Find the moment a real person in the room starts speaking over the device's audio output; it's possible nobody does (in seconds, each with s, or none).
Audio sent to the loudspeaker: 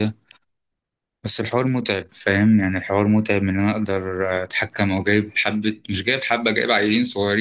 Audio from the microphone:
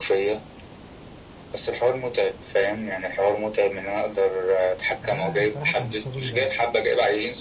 5.0 s